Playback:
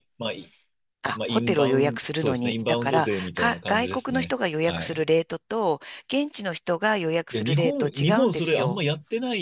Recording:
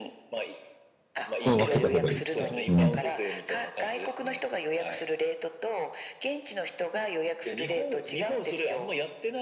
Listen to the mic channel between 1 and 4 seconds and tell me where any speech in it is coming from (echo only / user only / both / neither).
both